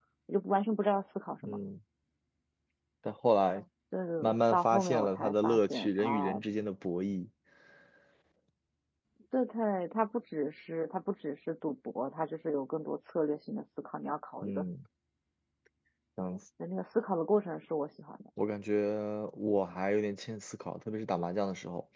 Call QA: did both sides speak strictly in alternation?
No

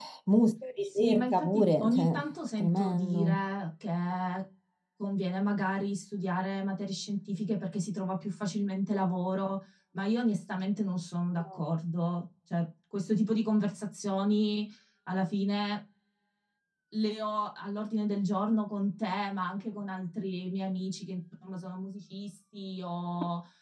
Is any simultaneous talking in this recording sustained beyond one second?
Yes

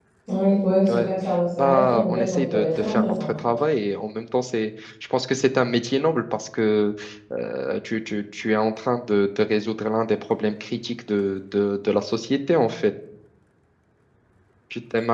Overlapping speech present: Yes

